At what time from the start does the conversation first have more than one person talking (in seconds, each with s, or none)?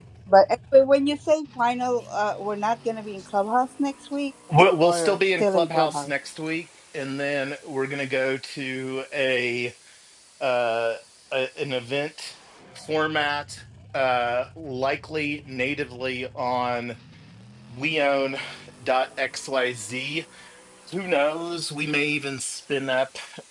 4.8 s